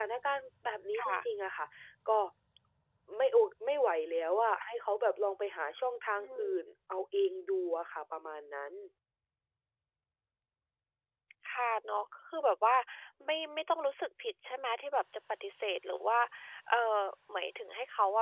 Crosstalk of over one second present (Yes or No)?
No